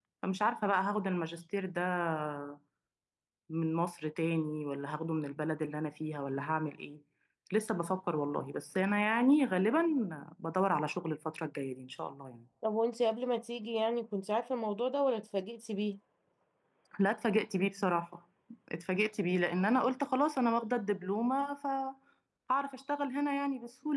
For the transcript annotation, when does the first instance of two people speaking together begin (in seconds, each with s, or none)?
none